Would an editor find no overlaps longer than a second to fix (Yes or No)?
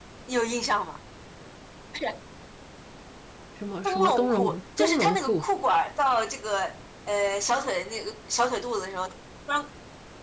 No